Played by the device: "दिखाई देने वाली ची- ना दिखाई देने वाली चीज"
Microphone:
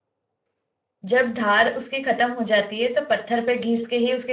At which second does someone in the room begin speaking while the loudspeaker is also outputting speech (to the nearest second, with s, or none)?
1 s